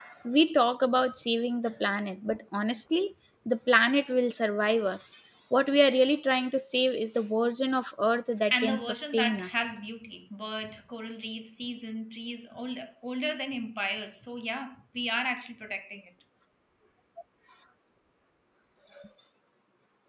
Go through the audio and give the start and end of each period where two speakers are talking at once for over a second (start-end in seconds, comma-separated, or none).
8.5-9.8